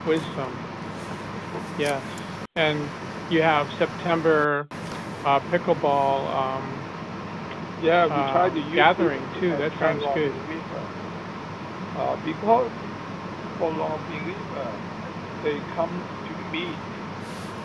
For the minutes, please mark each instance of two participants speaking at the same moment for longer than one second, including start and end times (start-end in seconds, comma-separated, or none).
8.1-10.3